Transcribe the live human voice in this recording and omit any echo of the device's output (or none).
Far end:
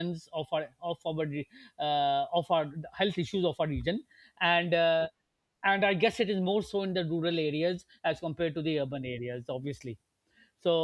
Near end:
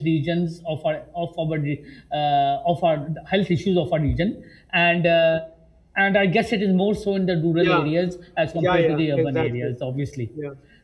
yeah, yeah, yeah, exactly. Yeah,